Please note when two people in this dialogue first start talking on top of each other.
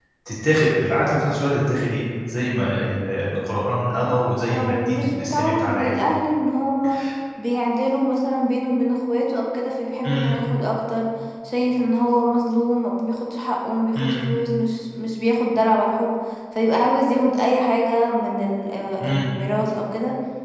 5 s

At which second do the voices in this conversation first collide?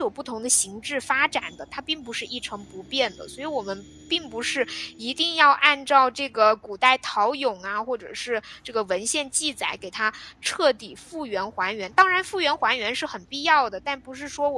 none

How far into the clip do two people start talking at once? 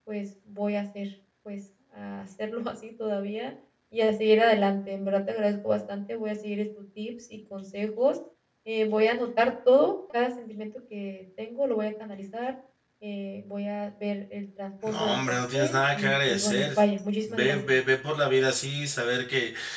15 s

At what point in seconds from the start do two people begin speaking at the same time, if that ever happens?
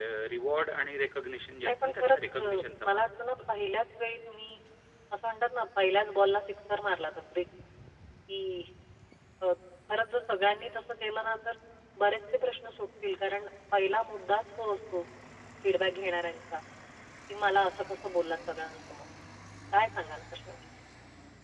2 s

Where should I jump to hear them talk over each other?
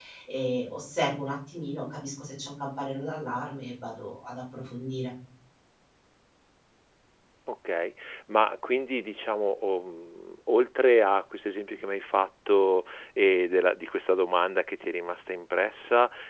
none

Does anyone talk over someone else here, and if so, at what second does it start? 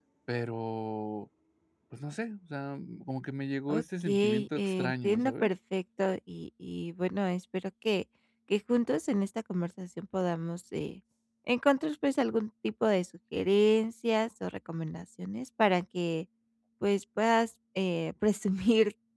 4 s

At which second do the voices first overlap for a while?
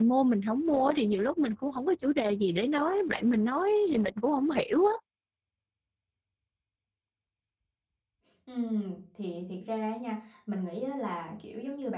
none

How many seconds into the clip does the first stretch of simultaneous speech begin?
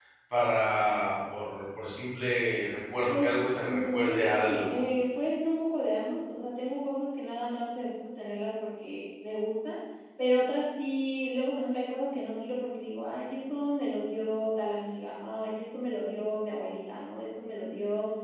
3 s

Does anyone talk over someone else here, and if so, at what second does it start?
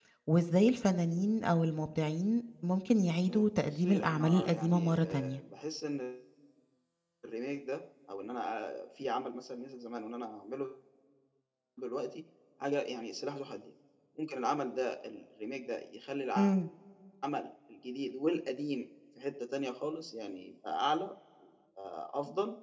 3 s

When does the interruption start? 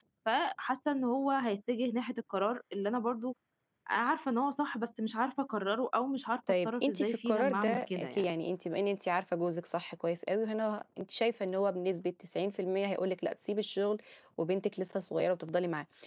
6 s

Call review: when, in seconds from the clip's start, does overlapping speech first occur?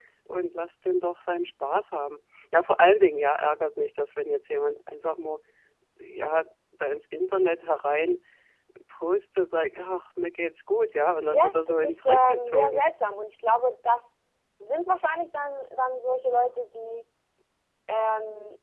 11 s

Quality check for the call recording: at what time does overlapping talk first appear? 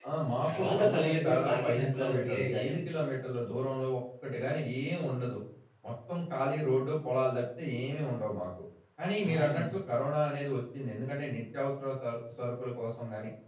1 s

